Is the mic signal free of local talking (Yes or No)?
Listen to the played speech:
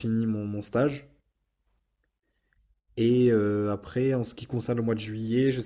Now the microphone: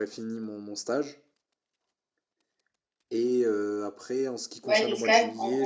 No